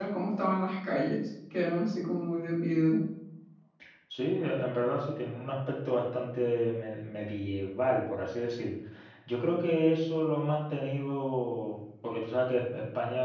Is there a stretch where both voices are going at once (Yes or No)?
No